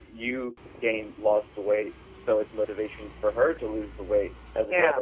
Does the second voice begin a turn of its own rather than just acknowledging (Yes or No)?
No